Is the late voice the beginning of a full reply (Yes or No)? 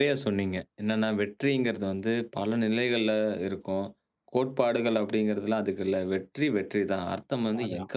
No